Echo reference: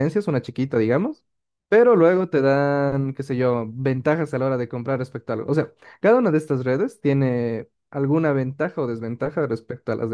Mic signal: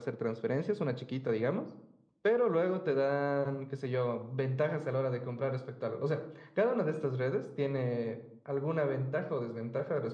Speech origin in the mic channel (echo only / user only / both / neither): echo only